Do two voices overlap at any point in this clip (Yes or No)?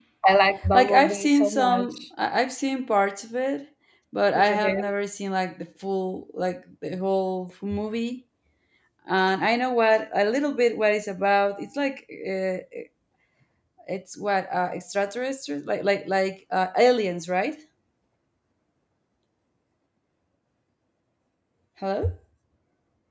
Yes